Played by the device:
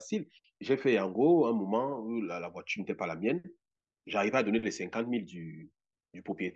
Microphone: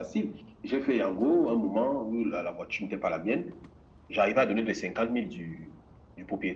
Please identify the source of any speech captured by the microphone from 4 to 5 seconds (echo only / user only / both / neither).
echo only